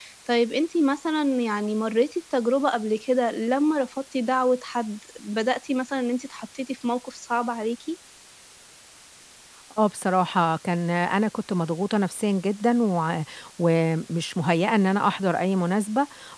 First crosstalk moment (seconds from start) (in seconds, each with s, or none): none